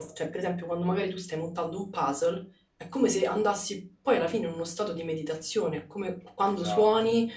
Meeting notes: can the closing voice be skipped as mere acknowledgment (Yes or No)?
Yes